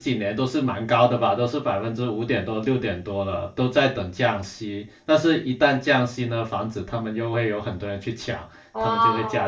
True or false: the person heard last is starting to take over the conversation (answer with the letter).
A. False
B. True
B